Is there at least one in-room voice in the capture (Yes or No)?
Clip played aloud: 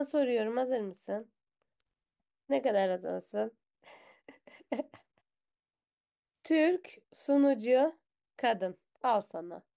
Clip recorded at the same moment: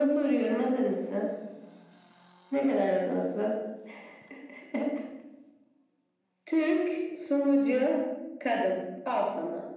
No